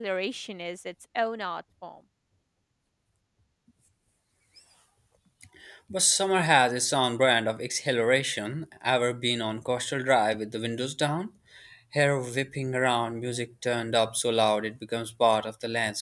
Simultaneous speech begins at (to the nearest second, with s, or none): none